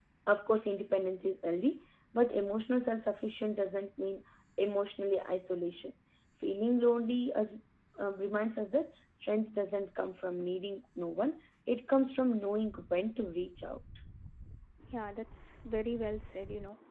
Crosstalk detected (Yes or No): No